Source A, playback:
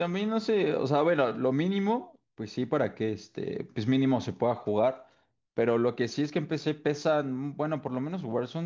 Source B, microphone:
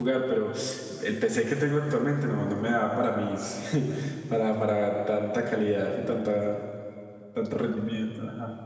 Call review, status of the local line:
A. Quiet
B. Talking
B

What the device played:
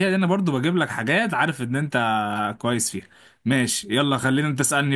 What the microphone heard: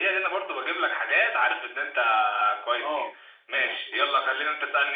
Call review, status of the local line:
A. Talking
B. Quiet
A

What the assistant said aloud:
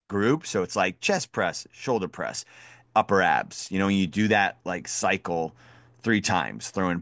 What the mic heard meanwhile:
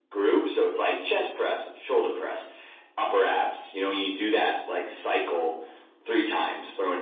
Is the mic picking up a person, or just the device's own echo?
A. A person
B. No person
B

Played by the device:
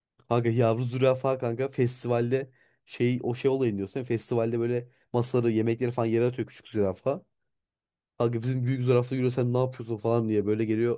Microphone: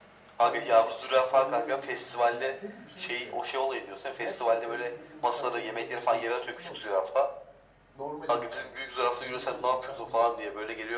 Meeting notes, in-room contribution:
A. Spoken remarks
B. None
A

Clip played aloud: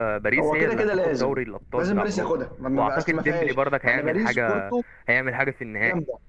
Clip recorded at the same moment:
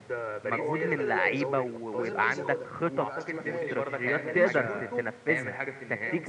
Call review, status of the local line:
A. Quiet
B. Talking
B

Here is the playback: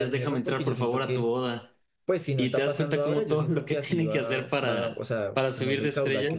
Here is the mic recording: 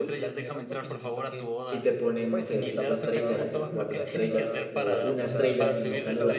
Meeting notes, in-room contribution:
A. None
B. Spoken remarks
B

